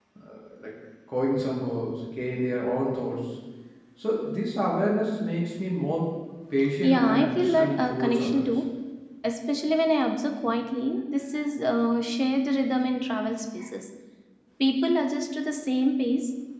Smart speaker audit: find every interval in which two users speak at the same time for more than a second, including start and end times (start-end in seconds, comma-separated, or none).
6.8-8.5